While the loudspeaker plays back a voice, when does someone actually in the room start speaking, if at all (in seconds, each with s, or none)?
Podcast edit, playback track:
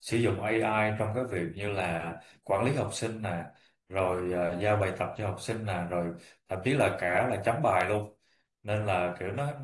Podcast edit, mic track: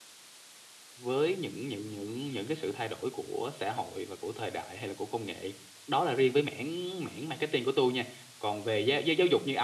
1.0 s